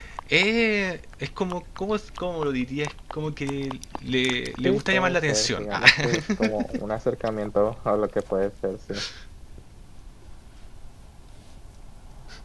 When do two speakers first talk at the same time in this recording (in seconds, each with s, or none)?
4.6 s